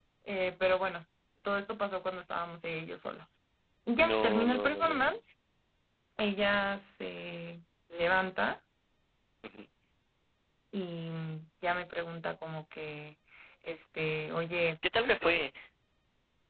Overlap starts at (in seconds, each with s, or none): 4.0 s